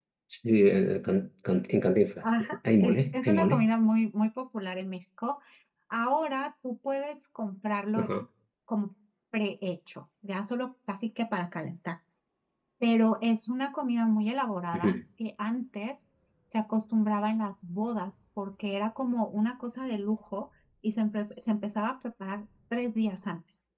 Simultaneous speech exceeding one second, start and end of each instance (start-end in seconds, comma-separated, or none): 2.2-3.6